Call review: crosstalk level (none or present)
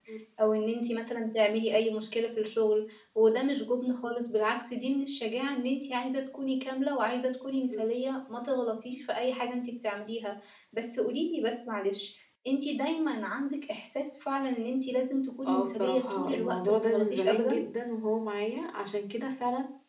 present